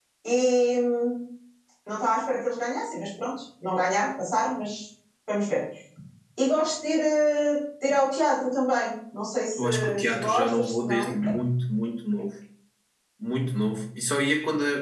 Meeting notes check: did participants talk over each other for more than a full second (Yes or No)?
Yes